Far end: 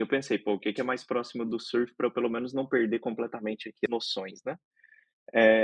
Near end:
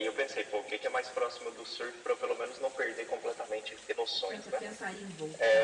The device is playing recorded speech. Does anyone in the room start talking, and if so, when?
4.3 s

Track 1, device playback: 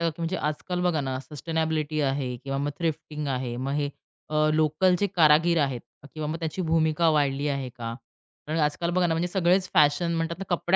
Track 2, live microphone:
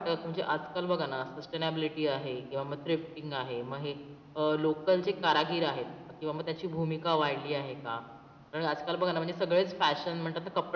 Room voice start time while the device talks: none

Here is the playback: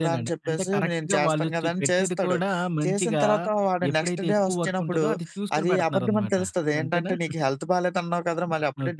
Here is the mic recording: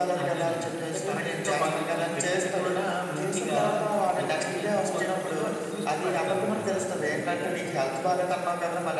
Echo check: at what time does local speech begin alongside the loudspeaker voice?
none

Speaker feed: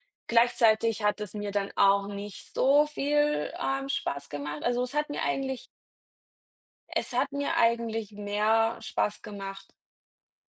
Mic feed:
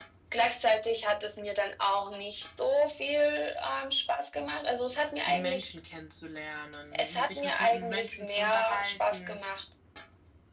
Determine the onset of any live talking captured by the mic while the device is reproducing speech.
5.3 s

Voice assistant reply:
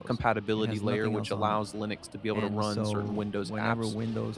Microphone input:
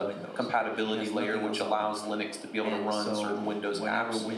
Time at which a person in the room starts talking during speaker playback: none

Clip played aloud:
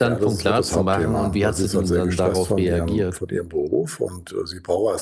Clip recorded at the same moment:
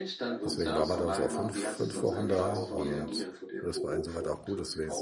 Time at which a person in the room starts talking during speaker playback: 0.5 s

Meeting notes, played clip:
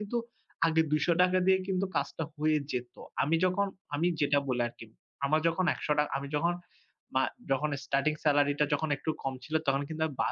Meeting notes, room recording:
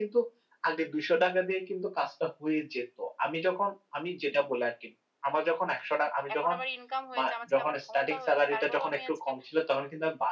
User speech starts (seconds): 6.3 s

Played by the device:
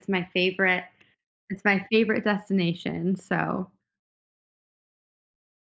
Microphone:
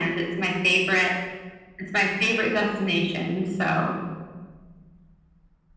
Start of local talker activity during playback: none

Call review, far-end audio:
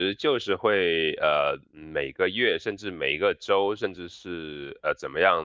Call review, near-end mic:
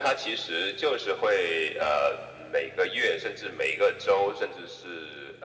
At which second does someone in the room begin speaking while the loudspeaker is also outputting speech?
none

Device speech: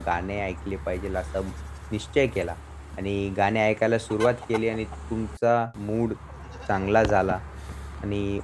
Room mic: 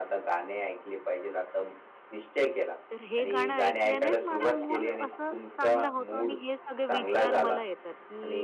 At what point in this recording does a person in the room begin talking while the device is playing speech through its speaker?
2.9 s

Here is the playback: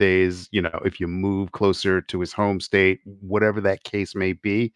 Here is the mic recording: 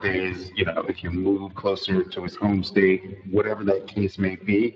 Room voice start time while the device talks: none

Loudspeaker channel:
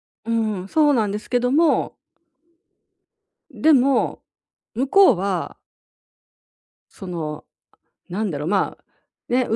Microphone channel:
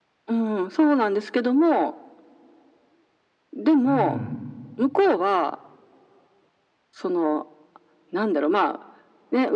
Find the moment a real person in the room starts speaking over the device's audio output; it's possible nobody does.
3.8 s

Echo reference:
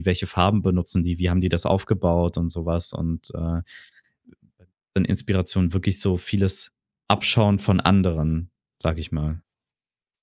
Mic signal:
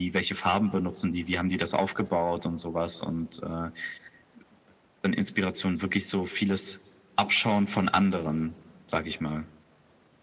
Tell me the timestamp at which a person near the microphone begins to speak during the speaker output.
none

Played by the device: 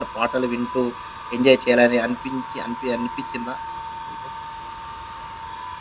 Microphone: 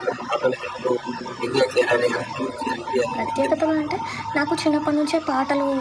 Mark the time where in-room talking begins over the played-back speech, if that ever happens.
3.1 s

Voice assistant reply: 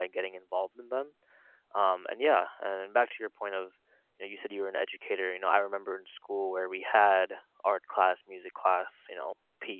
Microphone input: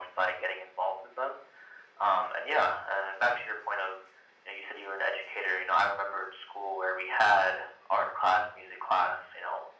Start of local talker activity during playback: none

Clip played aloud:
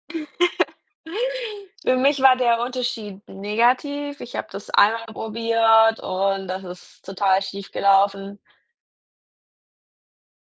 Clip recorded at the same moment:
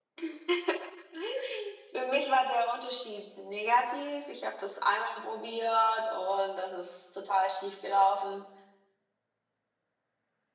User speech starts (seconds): none

